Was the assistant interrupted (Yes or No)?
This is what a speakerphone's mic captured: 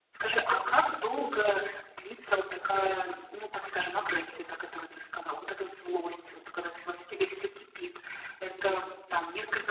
No